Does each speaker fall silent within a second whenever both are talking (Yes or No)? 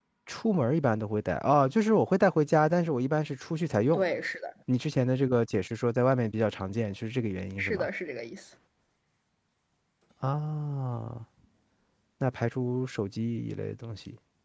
Yes